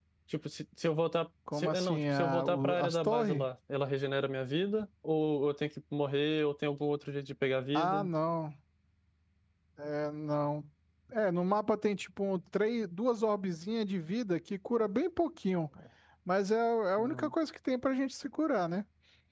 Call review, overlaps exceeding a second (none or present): present